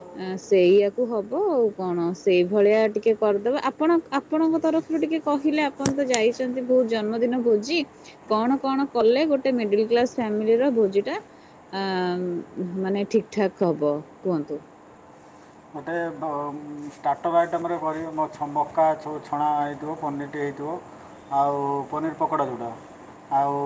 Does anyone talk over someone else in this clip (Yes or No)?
No